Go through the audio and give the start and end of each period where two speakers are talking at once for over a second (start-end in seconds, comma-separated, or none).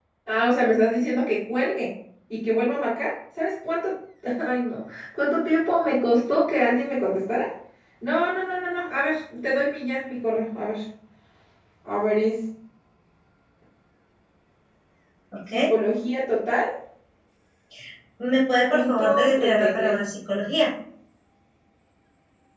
18.7-20.0